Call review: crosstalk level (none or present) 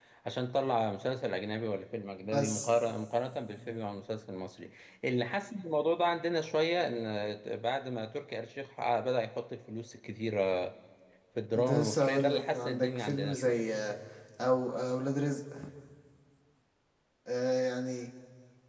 present